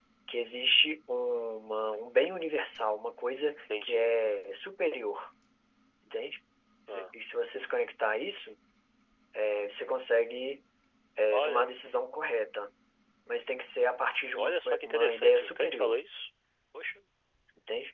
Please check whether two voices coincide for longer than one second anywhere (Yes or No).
Yes